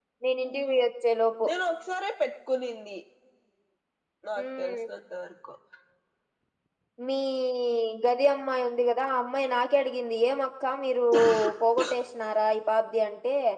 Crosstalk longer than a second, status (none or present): none